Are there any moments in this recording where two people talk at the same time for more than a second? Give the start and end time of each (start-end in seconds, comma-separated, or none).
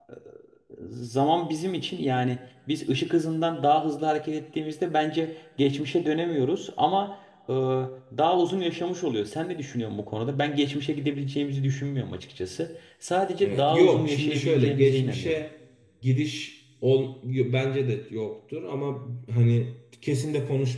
13.4-15.4